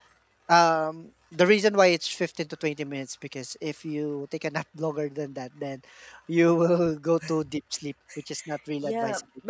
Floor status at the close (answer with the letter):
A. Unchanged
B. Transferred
B